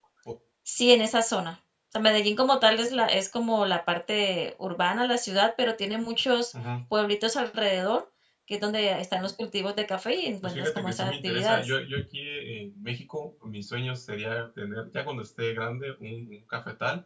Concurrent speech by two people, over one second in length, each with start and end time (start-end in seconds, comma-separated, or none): 10.4-11.7